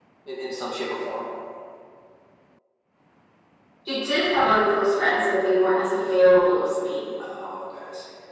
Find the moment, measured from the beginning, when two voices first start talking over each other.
none

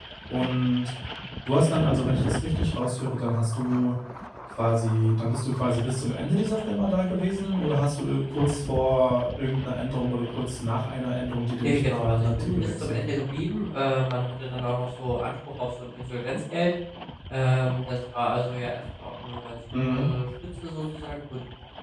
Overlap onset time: 11.6 s

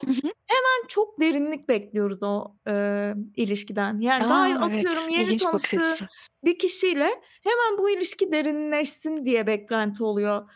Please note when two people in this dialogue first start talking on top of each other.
4.2 s

